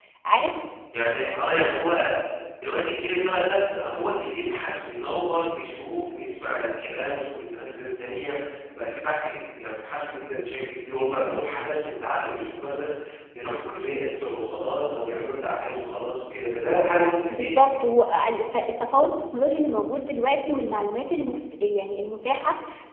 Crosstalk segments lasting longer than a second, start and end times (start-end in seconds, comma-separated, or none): none